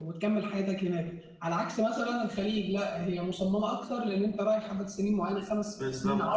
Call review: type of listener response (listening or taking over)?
listening